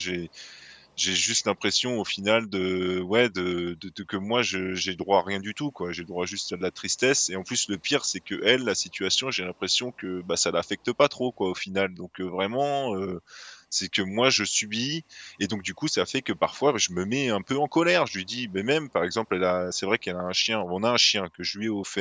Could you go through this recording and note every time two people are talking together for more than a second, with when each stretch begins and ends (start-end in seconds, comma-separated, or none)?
none